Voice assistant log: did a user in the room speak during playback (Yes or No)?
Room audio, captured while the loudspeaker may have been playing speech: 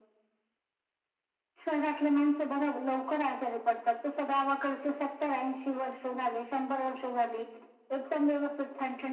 No